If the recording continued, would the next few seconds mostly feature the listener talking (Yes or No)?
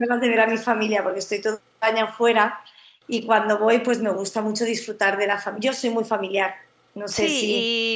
Yes